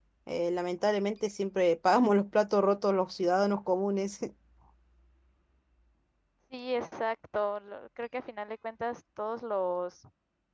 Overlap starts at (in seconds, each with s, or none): none